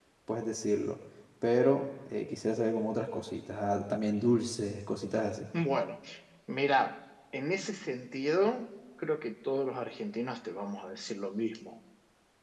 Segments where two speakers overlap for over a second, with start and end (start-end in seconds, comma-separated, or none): none